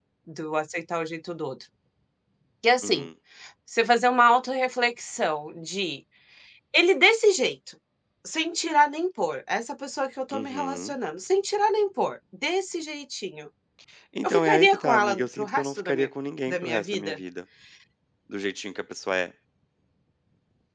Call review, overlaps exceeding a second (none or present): present